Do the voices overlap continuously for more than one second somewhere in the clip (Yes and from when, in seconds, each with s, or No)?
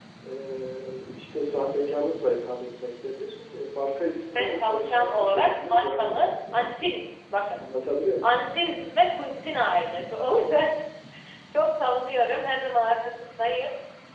Yes, from 4.3 s